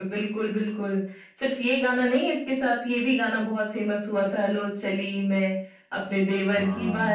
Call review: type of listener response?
listening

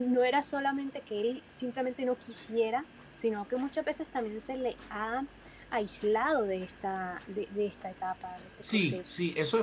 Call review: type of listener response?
taking over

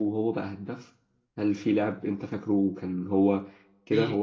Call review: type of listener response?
taking over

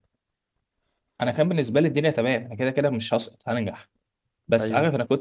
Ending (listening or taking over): listening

